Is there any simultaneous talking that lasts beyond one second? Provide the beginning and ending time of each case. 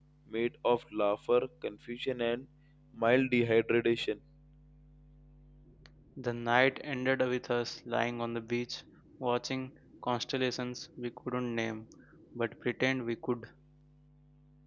none

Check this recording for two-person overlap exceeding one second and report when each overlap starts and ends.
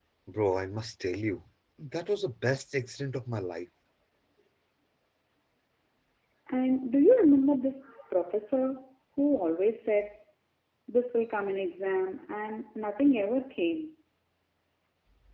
none

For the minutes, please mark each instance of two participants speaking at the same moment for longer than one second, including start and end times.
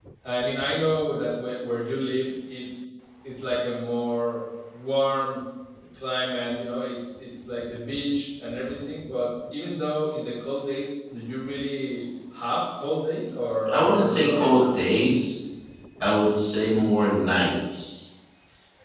13.7-15.1

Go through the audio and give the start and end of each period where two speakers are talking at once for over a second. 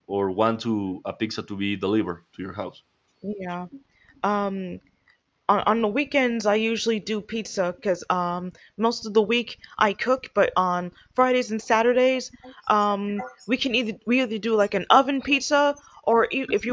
none

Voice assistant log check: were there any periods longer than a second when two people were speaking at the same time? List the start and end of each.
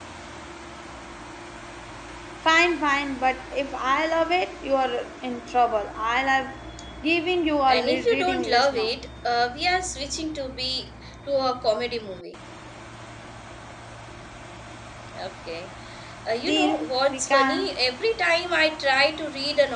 7.7-8.9, 16.4-17.8

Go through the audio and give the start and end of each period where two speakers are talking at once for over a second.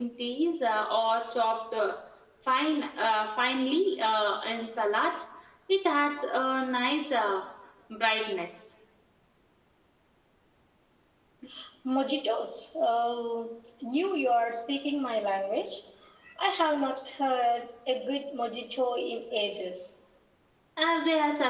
none

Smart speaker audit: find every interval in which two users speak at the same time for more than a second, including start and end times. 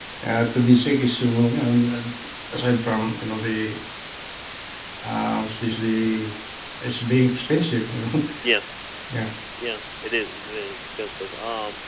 none

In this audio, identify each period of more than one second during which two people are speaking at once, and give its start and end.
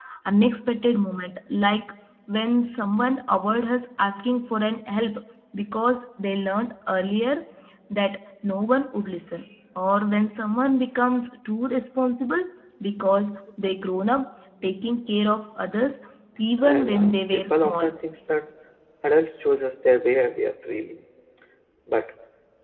16.6-17.9

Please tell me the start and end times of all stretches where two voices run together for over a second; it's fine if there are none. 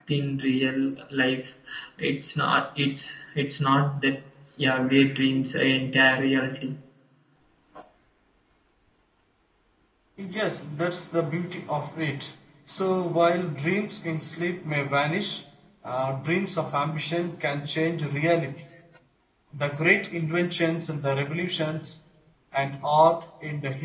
none

